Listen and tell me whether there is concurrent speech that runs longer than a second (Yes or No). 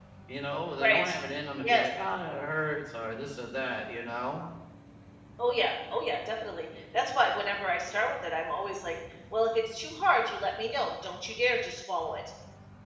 No